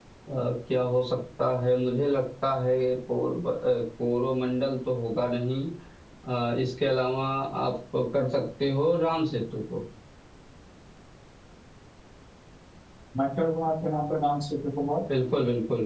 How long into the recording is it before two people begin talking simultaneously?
none

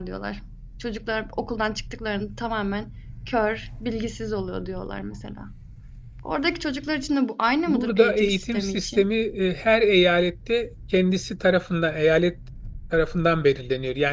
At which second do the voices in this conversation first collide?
8 s

